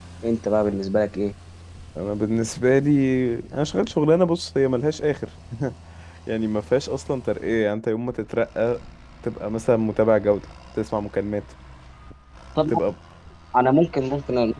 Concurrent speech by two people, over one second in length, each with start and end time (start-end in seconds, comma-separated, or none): none